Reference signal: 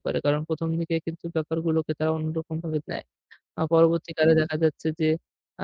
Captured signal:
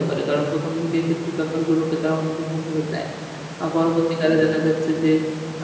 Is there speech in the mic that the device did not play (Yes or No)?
No